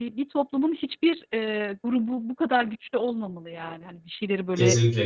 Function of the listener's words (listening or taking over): taking over